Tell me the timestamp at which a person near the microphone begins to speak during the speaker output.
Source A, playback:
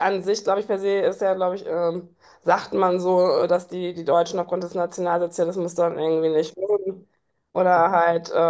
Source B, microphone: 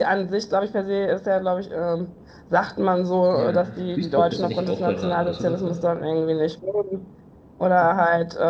3 s

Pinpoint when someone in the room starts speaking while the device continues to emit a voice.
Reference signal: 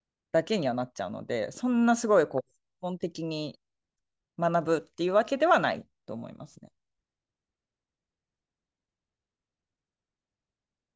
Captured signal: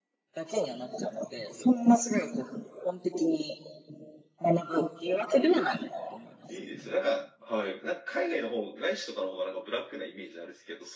6 s

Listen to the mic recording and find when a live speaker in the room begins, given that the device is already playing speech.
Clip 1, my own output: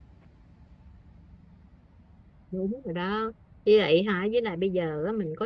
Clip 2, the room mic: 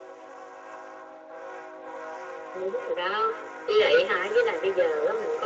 none

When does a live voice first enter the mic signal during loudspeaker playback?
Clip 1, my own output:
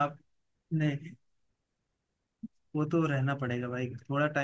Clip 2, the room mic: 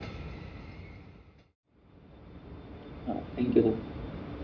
3 s

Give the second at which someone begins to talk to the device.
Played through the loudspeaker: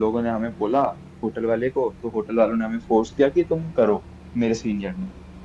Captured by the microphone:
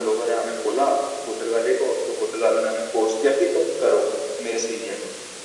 none

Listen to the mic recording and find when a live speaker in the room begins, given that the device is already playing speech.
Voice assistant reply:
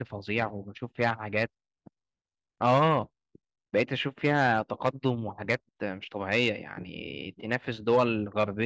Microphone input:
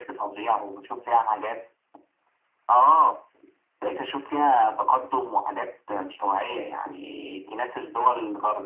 none

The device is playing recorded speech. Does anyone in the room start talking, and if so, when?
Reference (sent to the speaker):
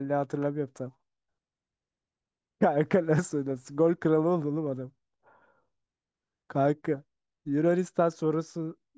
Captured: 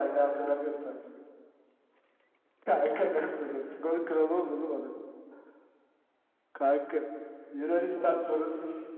8 s

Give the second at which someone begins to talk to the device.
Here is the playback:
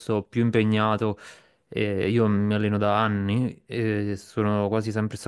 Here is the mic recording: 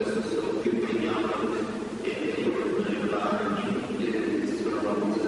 none

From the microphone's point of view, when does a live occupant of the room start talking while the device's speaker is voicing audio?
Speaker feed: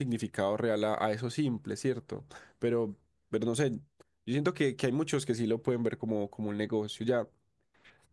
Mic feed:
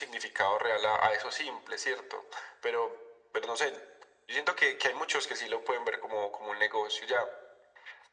none

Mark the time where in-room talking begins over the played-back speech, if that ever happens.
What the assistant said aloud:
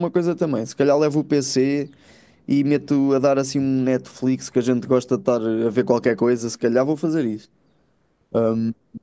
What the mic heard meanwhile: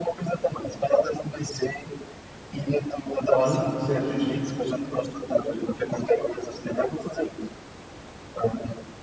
3 s

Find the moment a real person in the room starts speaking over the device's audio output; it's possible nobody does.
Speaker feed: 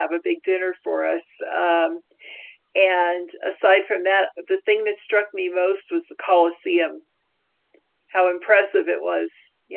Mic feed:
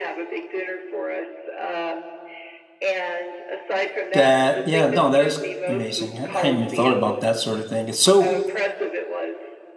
4 s

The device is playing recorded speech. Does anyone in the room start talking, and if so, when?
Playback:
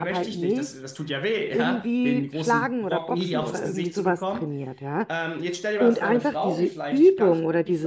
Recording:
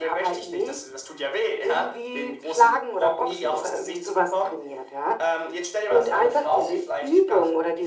none

